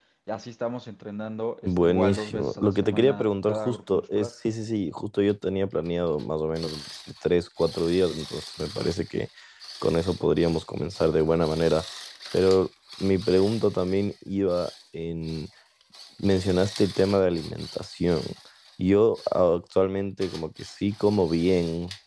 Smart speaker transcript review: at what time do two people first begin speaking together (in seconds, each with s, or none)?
1.6 s